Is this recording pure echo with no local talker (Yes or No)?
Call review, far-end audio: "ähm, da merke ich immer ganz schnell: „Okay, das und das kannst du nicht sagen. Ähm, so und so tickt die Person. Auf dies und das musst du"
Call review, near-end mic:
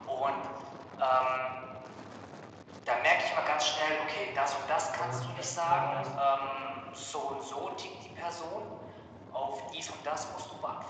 No